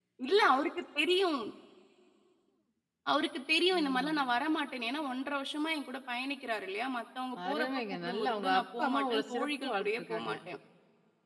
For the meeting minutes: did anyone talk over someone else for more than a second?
Yes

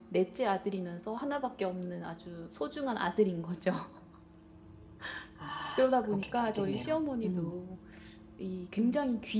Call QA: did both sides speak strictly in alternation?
No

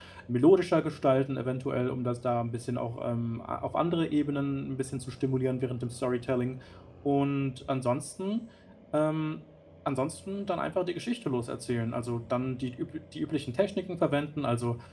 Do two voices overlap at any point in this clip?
No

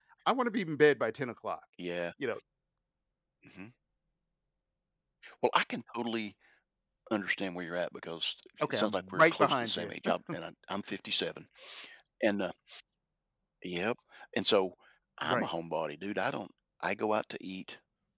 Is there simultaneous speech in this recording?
Yes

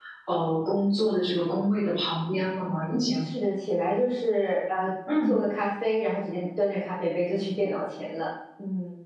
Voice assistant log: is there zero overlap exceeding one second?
Yes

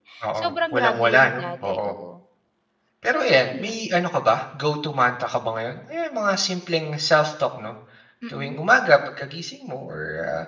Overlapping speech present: Yes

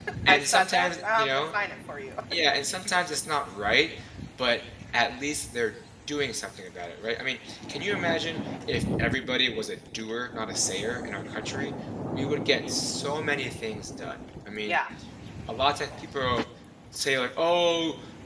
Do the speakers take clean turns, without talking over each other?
No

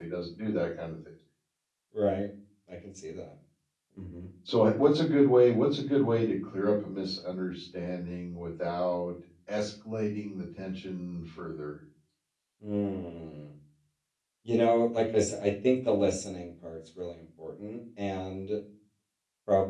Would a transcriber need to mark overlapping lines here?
No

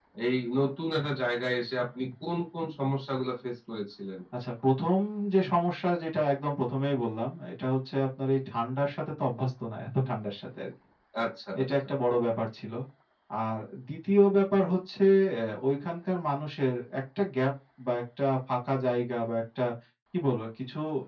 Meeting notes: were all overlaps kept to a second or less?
Yes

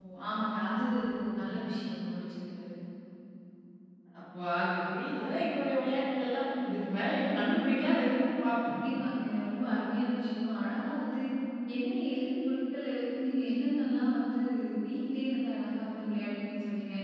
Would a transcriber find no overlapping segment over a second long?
Yes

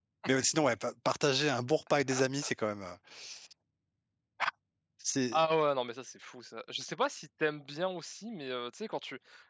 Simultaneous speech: No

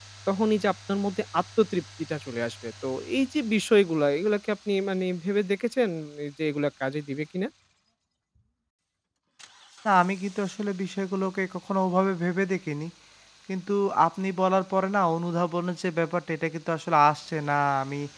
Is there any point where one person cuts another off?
No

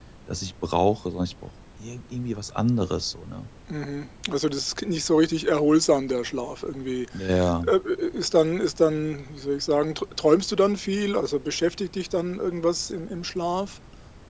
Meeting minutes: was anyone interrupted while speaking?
No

